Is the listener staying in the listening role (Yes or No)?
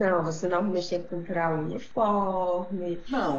No